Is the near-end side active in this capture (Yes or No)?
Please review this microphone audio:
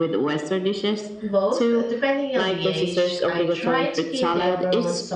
Yes